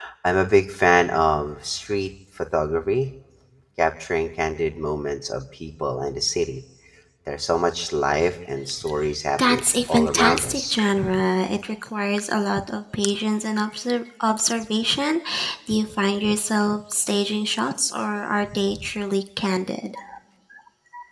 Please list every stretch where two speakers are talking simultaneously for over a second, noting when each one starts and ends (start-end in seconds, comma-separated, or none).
9.4-10.7